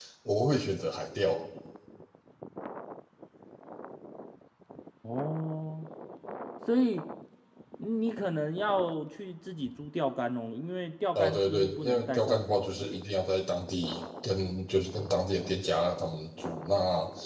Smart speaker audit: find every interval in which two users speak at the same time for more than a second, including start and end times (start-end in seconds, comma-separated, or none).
11.2-13.0